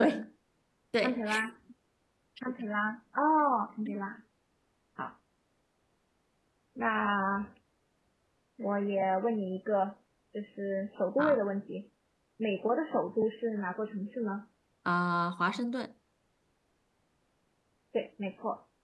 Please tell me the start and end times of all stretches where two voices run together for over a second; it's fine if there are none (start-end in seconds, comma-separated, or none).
none